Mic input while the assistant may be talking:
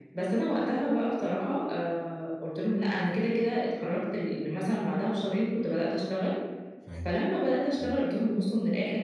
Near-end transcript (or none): فاهم، إمم.